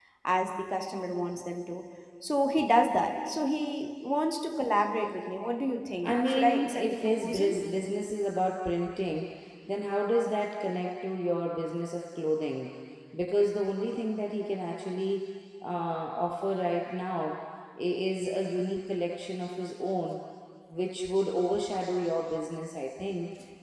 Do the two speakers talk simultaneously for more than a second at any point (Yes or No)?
Yes